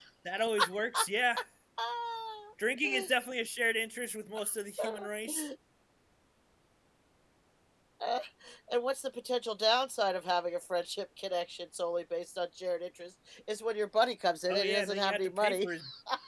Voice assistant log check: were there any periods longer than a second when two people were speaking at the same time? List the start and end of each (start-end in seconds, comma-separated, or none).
14.5-15.7